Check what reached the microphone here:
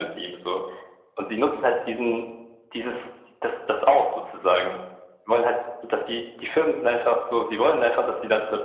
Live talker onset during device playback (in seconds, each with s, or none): none